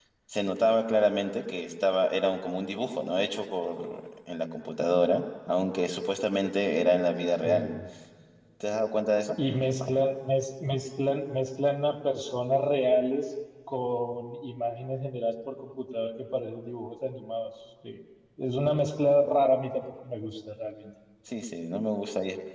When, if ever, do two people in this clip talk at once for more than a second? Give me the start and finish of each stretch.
none

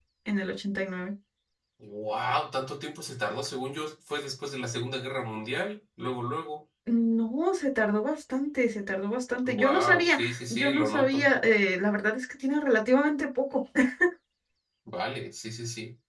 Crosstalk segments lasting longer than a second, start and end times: 9.4-11.2

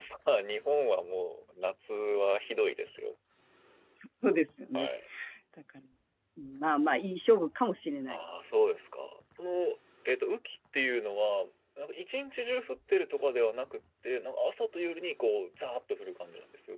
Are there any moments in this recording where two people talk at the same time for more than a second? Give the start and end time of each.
none

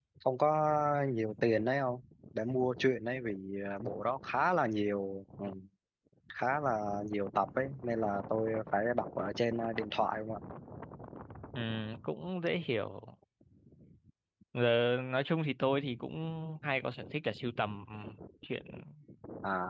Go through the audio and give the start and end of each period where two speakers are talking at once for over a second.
none

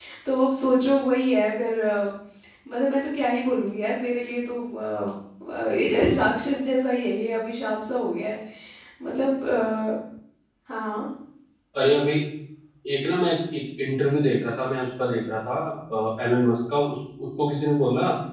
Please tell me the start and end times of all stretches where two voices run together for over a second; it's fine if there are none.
none

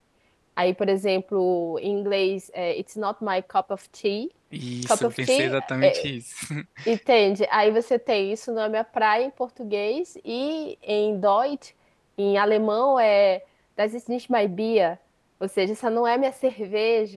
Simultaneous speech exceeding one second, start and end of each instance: 4.8-6.1

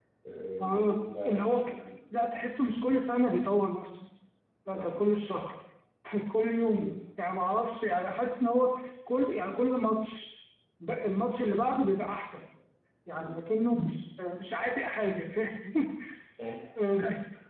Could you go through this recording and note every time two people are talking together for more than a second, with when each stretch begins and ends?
0.6-1.8

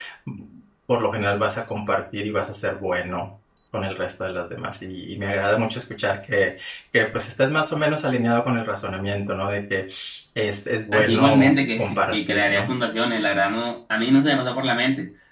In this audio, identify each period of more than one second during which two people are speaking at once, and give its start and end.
10.9-12.7

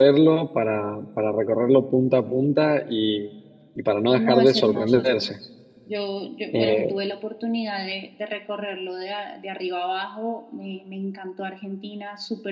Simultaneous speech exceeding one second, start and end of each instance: 4.2-5.4

